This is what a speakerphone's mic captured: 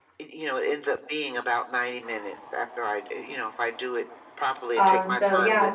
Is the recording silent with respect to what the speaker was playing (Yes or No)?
No